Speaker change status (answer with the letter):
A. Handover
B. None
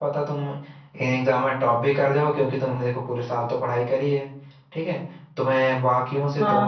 A